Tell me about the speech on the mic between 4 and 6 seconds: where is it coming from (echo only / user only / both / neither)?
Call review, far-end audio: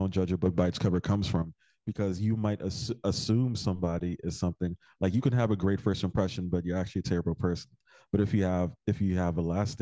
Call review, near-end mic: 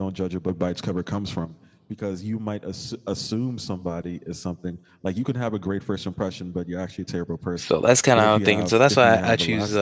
echo only